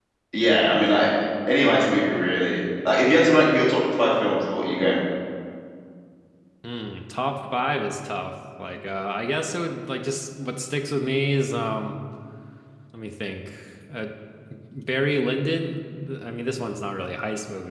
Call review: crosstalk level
none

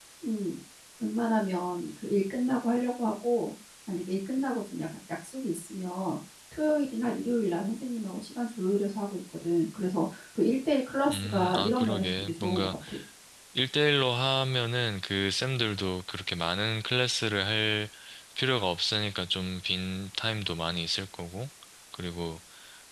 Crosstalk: present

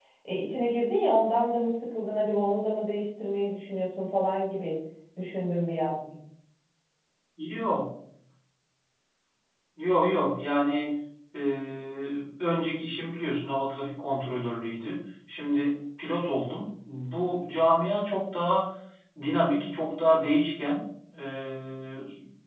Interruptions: none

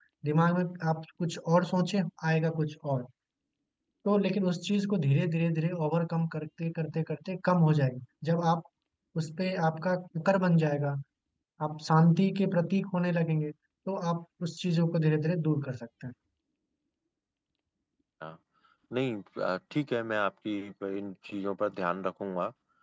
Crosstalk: none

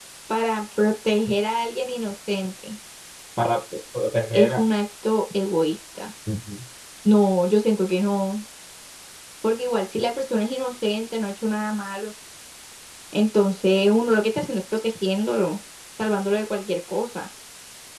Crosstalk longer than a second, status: none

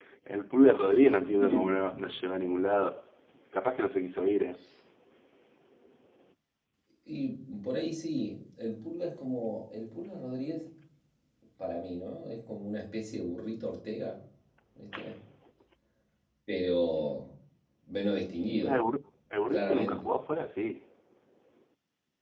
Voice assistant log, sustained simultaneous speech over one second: none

